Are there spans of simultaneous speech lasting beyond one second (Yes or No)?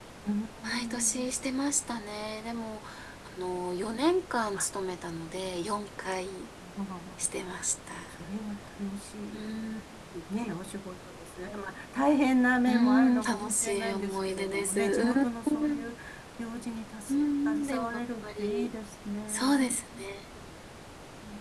Yes